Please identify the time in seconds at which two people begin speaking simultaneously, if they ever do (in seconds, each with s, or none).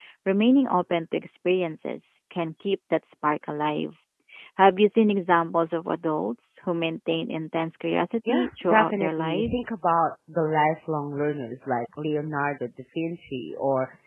8.3 s